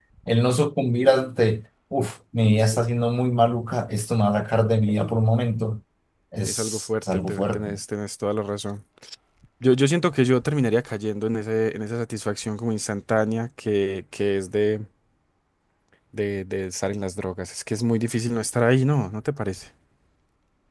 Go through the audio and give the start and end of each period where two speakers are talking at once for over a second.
6.5-7.7

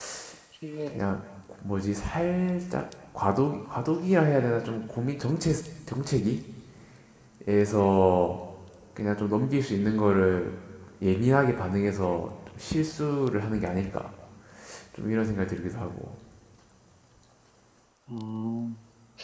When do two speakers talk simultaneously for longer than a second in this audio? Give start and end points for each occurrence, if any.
none

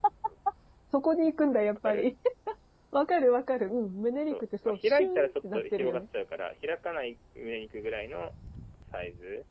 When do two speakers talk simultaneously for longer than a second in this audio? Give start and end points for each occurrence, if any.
4.3-6.0

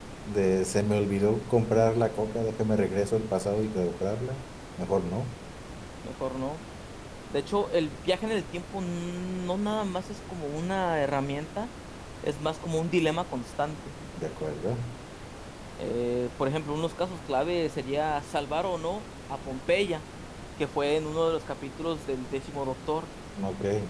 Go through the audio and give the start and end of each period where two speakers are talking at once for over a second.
none

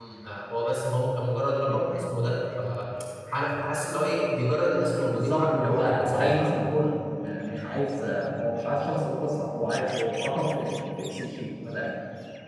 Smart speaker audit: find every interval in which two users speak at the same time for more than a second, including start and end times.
5.0-6.4

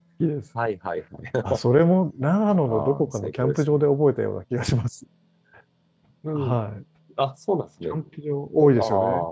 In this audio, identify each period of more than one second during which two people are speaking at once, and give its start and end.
2.5-3.9

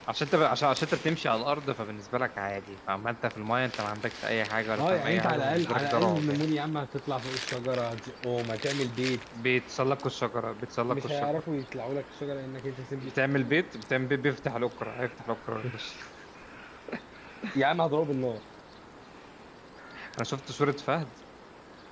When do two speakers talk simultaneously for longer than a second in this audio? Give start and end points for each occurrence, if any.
4.8-6.4

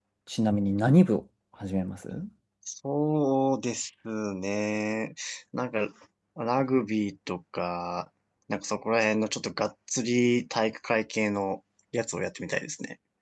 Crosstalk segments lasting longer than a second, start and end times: none

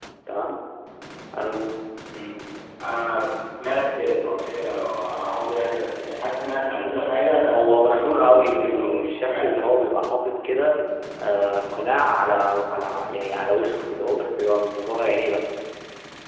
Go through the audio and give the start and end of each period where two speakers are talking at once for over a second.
7.5-9.3

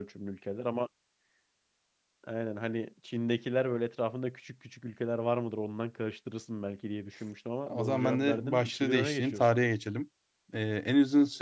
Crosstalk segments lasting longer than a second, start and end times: 7.7-9.4

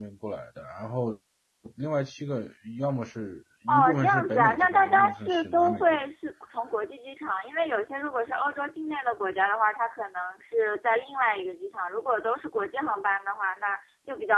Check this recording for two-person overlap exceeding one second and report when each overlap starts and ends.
3.7-6.0

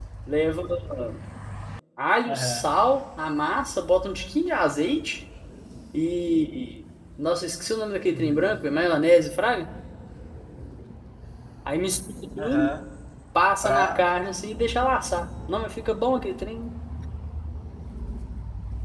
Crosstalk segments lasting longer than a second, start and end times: none

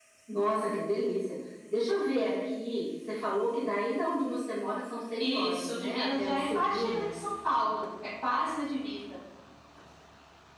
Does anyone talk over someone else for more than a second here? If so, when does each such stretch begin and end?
5.2-7.1

